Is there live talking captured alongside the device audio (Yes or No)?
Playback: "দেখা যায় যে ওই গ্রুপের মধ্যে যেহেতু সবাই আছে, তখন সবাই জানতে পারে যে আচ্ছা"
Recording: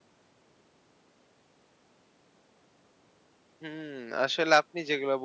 Yes